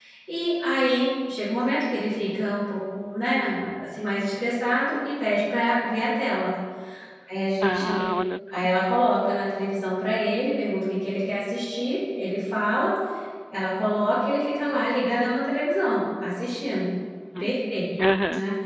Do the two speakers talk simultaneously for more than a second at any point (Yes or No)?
No